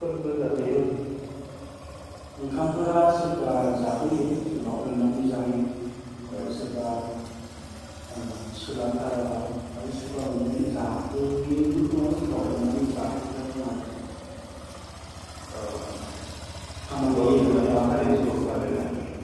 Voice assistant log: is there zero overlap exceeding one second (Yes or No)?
No